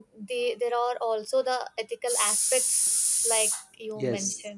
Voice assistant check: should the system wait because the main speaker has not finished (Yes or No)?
No